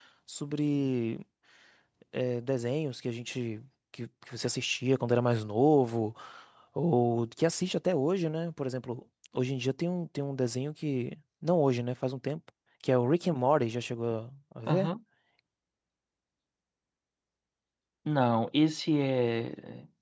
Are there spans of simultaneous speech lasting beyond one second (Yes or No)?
No